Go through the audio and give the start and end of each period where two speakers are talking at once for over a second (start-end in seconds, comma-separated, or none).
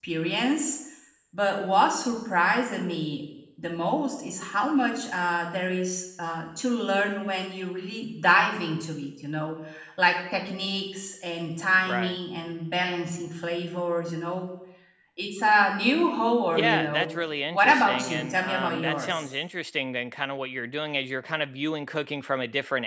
17.5-19.3